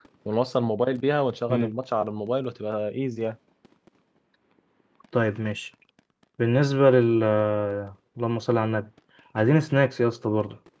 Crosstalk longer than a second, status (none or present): none